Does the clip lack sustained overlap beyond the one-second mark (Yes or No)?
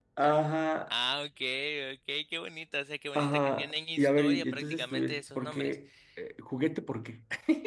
No